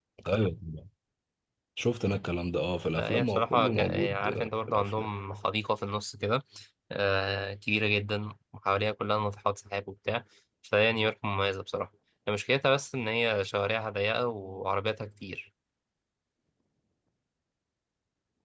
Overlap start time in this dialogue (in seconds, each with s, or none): 3.0 s